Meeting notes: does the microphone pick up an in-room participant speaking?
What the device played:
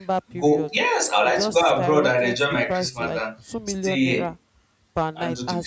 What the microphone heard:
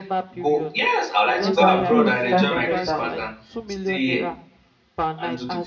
Yes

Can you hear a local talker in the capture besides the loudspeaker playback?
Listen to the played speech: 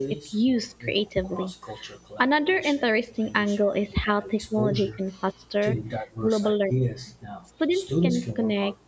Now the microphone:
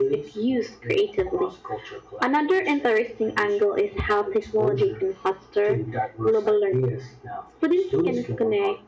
No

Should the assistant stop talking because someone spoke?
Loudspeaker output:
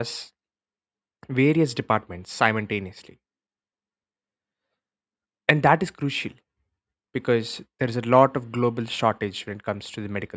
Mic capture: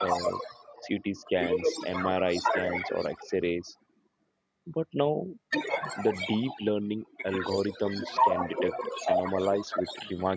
Yes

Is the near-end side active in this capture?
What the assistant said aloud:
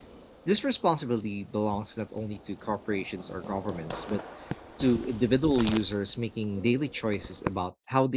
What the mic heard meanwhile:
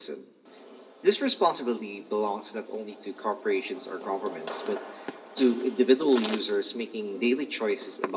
No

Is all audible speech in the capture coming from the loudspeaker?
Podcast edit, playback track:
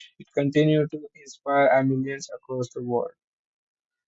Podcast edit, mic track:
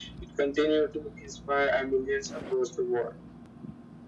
Yes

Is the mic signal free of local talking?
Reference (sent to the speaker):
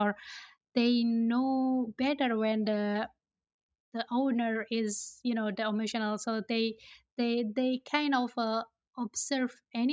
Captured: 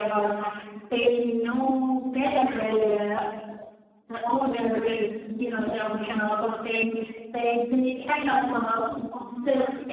Yes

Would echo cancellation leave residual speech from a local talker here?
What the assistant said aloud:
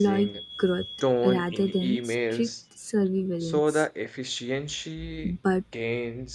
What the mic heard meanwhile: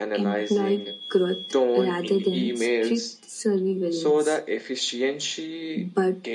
No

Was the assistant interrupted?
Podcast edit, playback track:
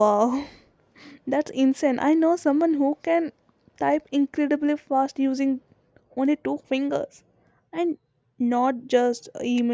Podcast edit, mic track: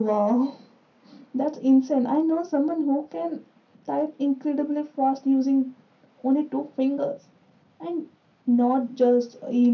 No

